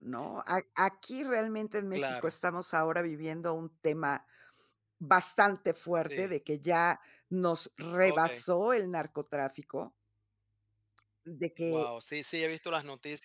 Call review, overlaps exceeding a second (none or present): none